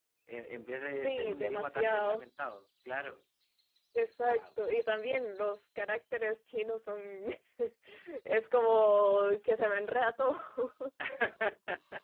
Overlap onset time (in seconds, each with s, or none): 1.0 s